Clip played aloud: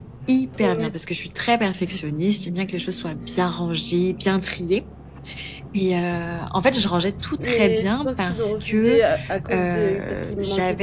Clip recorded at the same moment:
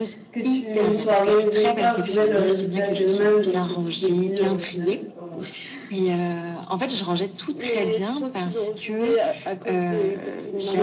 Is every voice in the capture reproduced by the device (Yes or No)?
No